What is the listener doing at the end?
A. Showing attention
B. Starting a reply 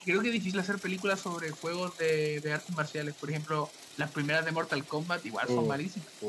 B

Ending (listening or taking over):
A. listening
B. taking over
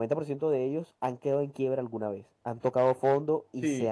B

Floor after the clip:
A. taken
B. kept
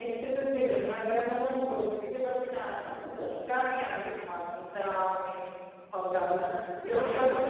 B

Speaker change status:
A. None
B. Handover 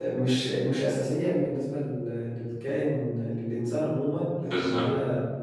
A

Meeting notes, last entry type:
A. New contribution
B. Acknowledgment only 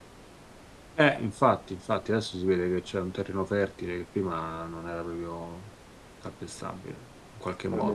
A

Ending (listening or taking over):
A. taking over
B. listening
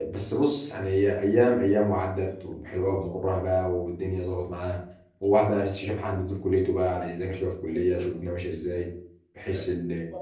A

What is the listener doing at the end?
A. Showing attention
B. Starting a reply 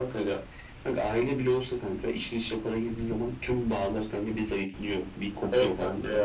B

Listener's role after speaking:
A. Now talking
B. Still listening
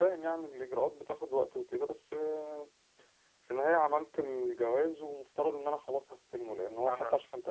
B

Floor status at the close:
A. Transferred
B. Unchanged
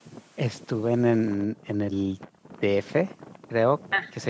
B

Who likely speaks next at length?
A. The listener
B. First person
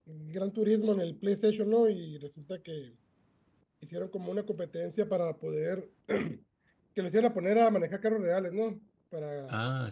A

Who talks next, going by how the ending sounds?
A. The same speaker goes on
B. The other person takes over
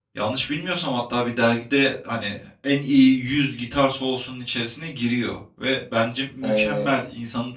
A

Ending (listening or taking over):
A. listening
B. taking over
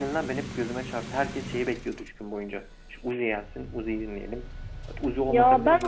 B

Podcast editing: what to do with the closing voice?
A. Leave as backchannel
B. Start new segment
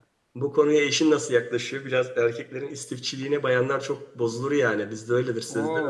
B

